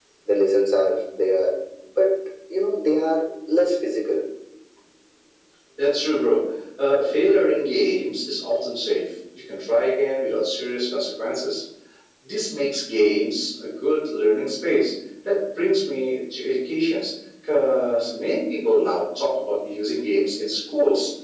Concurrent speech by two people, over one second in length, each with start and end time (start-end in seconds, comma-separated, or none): none